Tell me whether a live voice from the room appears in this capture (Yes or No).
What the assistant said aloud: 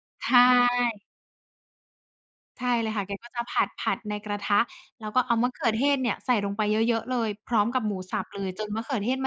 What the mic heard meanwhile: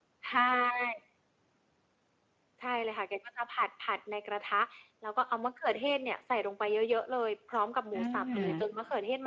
Yes